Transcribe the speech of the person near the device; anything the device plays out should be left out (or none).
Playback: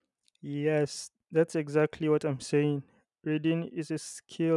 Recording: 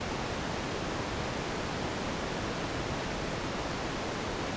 none